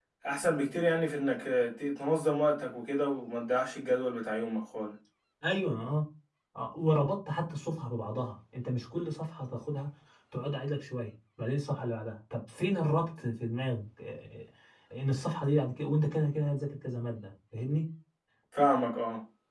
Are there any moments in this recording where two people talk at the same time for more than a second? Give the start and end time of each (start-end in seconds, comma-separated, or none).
none